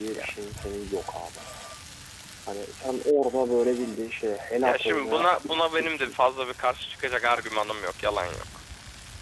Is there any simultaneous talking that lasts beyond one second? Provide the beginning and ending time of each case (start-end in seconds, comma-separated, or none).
4.6-6.2